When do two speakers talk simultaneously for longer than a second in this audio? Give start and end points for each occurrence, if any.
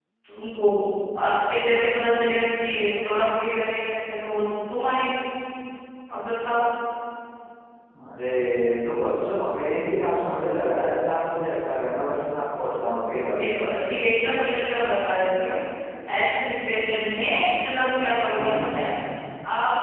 none

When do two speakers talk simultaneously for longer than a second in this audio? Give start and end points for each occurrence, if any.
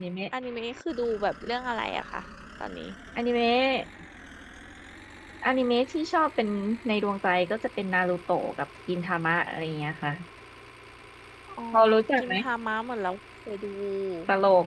none

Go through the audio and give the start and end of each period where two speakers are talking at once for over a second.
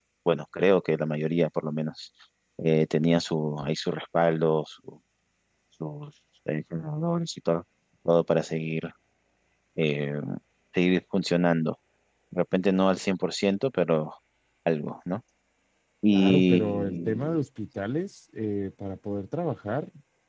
16.1-17.4

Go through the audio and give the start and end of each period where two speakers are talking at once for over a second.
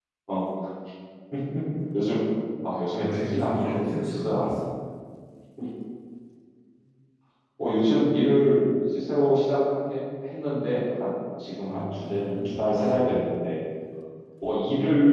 3.0-4.5, 11.7-12.9

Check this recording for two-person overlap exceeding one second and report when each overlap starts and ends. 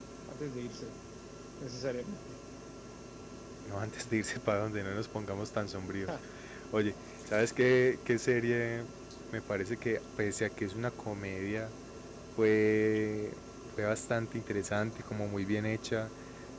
none

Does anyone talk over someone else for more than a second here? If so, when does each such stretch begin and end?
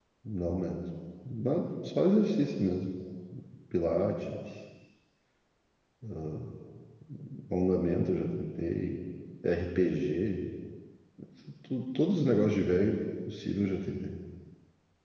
none

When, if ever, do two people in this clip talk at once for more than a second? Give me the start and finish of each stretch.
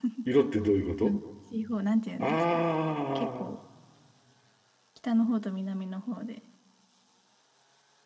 none

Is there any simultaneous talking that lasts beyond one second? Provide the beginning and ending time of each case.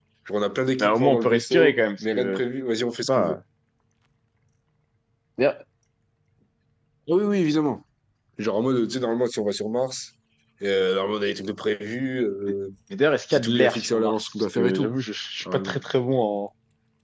0.8-2.4, 13.3-14.9

